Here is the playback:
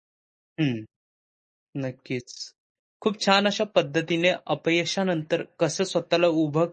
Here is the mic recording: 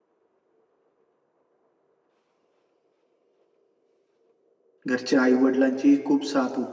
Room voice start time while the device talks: 4.9 s

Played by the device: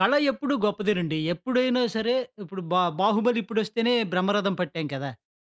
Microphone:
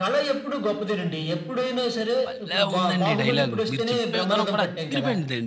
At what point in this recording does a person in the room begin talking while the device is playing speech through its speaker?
2.2 s

